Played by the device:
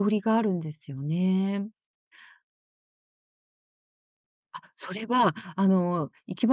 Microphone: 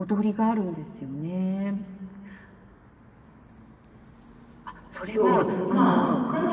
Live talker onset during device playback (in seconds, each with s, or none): 5.1 s